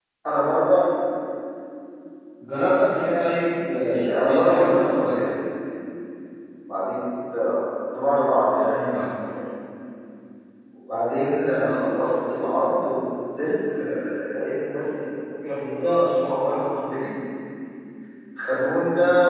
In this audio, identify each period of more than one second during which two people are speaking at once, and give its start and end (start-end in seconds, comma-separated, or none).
3.6-5.2